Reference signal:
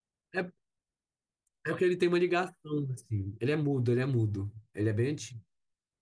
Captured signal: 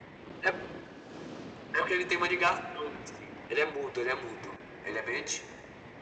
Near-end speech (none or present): none